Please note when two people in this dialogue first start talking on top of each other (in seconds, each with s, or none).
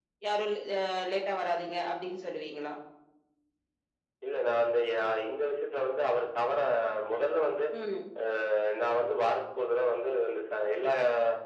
none